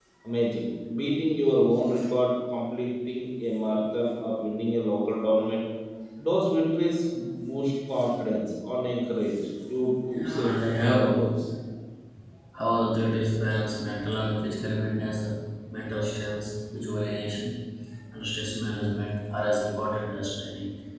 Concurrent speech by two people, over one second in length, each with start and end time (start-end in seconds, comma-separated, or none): 10.1-11.3